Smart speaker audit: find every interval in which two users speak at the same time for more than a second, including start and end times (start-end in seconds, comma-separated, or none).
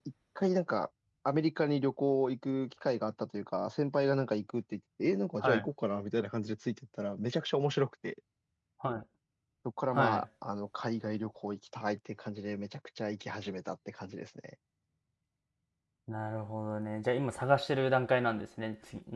none